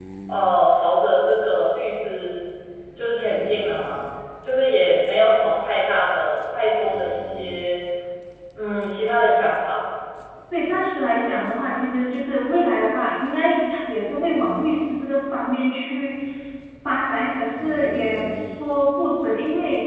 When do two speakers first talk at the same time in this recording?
none

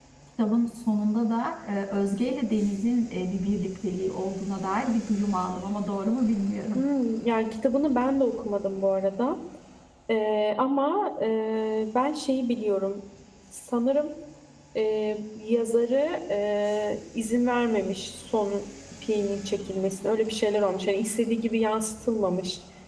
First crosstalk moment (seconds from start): none

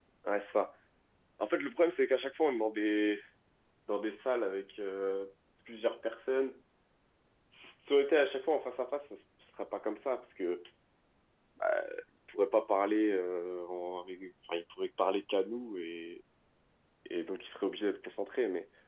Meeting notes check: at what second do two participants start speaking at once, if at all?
none

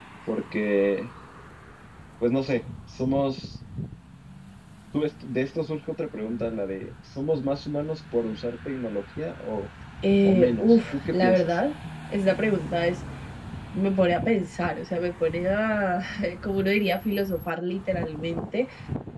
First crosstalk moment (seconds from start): 10 s

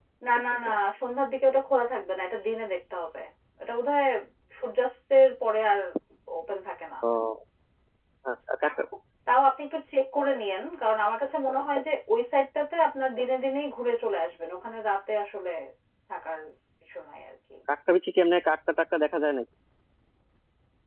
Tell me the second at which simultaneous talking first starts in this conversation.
none

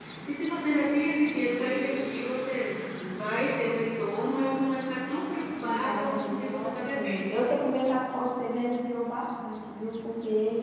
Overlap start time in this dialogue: 6 s

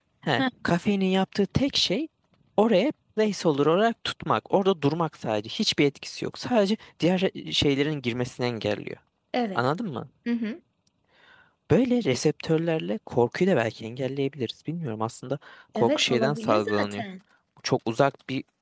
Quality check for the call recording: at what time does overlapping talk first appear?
16 s

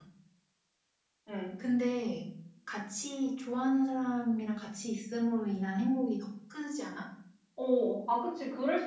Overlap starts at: none

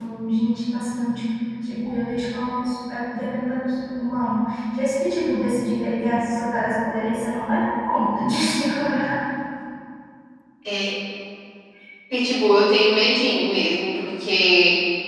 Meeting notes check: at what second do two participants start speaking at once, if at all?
none

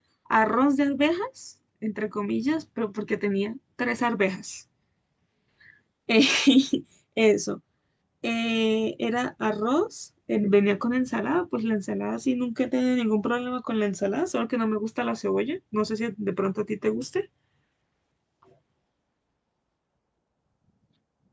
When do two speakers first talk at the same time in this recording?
none

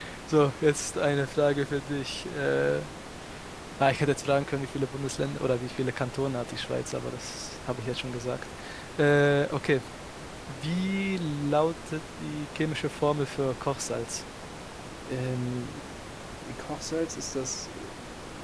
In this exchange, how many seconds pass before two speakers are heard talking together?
none

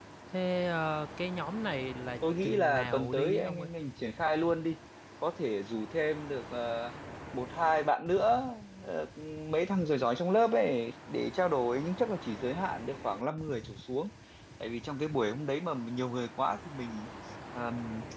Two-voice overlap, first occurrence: 2 s

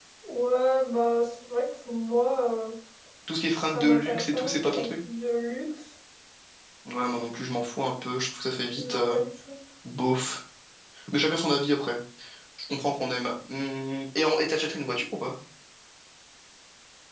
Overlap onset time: 4 s

